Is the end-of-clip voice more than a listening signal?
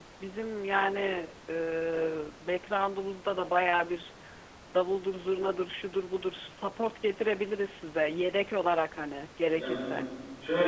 Yes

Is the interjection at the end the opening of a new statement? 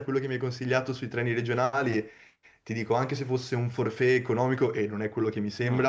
No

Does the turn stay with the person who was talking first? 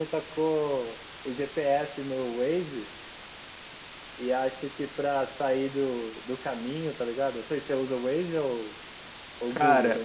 No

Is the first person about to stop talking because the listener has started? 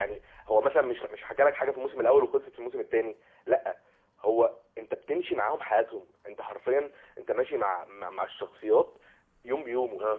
No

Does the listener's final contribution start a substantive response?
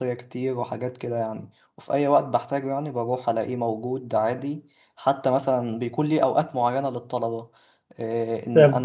No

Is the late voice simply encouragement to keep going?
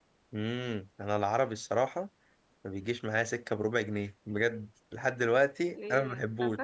No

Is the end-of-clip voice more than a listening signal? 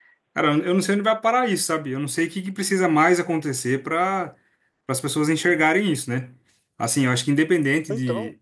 No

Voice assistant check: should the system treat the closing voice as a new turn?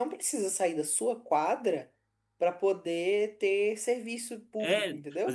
Yes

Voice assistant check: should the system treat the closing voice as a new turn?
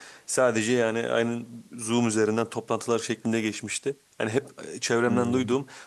No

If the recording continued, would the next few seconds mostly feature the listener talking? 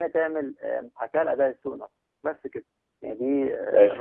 Yes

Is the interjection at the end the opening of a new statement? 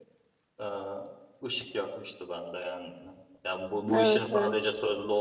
No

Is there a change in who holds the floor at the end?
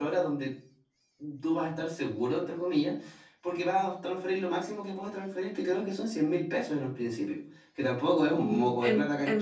Yes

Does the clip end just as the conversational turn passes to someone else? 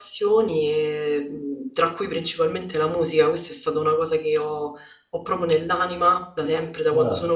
No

